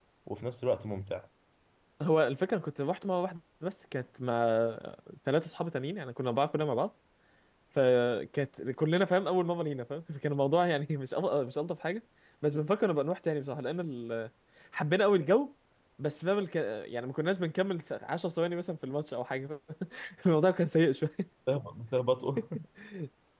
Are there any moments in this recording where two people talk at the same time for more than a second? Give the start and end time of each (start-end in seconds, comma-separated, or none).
none